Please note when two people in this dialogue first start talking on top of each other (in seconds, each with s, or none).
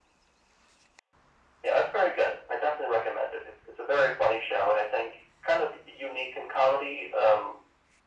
none